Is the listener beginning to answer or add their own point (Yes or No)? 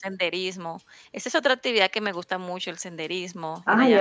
Yes